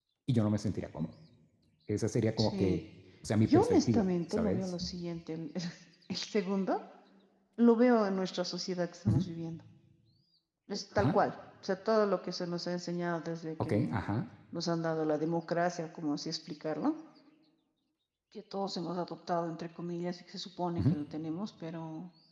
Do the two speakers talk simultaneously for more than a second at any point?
Yes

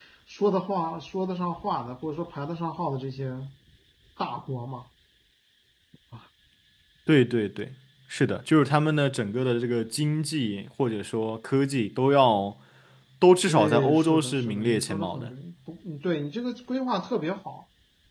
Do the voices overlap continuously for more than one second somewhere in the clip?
Yes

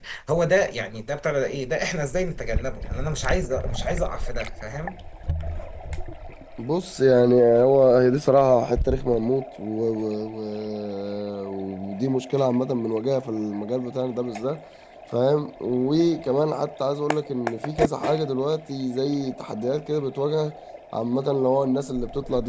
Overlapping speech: No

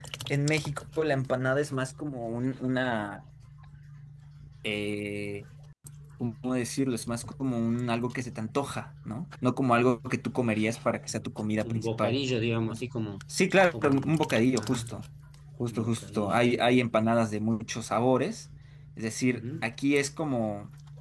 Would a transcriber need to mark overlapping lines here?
Yes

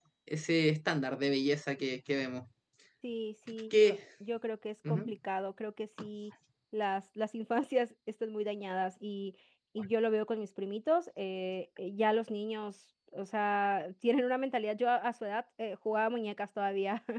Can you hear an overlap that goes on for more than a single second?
No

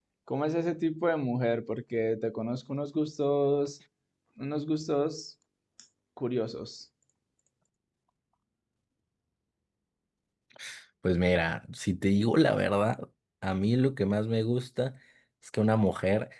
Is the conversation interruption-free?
Yes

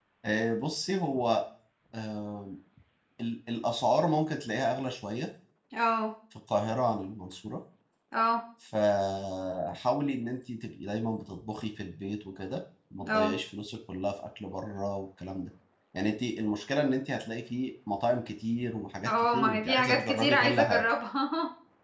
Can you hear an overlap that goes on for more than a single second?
Yes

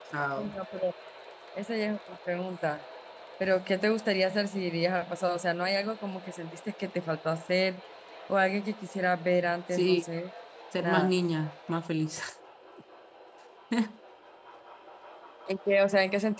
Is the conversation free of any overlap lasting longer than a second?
Yes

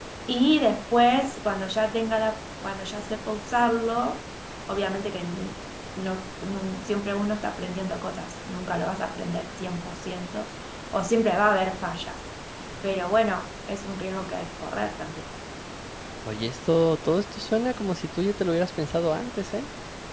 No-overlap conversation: Yes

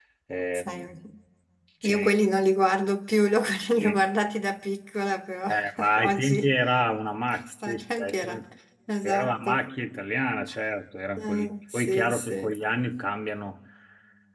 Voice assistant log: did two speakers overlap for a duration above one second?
Yes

